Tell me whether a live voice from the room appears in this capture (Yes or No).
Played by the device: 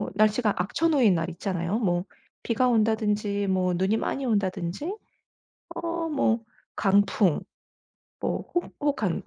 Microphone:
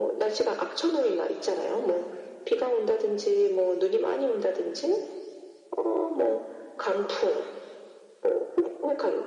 No